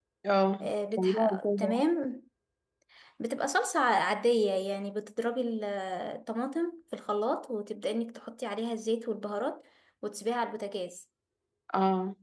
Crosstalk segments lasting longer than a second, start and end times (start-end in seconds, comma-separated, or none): 0.6-1.9